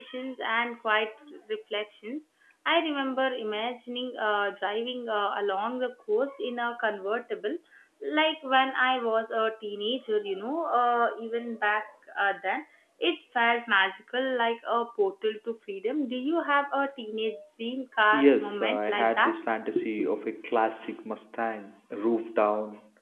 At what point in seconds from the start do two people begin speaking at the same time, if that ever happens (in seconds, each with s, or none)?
18.1 s